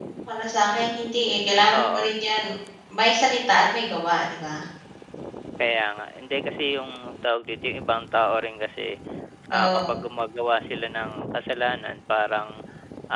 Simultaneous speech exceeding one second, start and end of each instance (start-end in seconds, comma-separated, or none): none